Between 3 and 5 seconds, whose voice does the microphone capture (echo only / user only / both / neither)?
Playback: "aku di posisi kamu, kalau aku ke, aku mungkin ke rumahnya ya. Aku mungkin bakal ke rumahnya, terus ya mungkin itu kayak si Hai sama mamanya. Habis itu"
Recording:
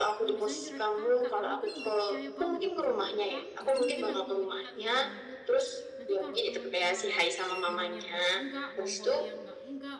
both